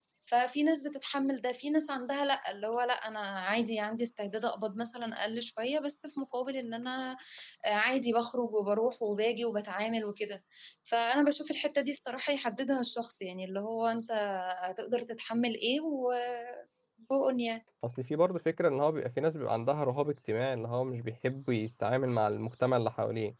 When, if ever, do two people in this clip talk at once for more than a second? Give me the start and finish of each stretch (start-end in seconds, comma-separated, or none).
none